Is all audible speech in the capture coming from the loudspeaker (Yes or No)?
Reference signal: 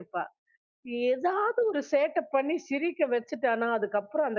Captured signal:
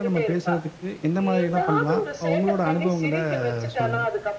No